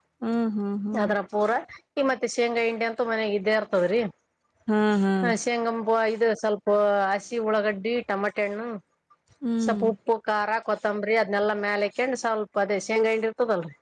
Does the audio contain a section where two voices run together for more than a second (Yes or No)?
No